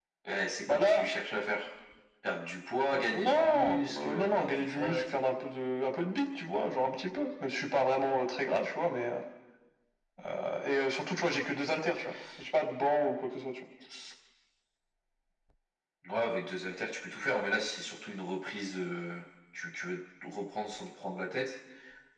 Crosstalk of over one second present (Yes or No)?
Yes